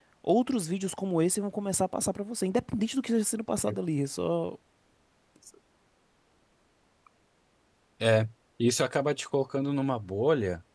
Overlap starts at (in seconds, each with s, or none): none